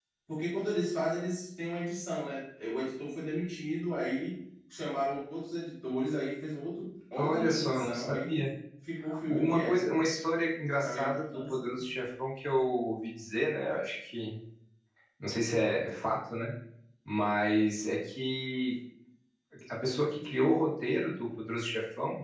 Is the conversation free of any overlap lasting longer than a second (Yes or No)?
No